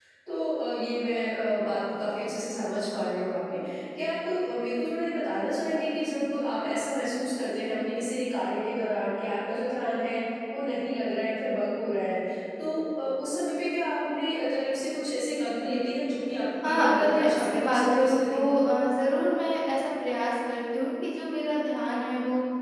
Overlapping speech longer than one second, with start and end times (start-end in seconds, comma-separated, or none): 16.6-18.5